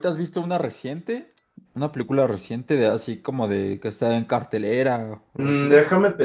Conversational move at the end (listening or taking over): taking over